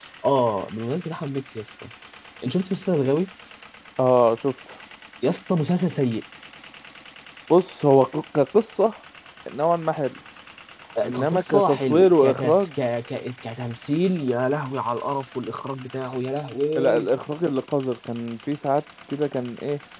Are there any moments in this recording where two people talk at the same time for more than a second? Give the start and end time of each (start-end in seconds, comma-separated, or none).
11.0-12.7